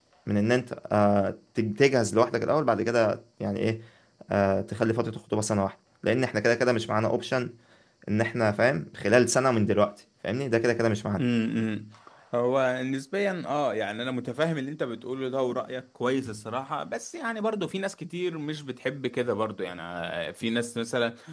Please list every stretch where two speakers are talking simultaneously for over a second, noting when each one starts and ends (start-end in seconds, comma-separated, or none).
none